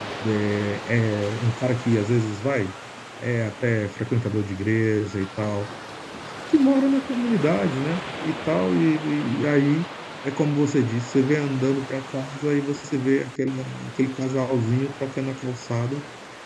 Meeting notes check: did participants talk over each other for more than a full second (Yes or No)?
No